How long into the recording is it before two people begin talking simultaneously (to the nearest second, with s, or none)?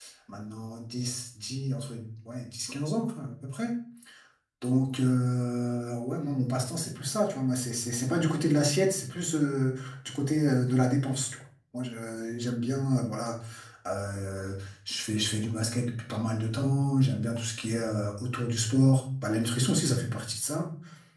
none